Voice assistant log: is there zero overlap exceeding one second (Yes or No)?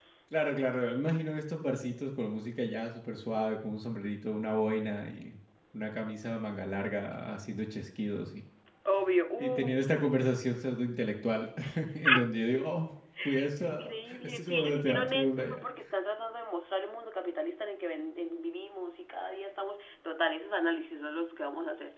No